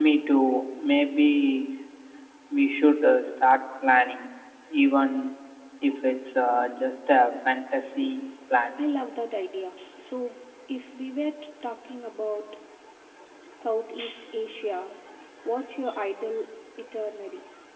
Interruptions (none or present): none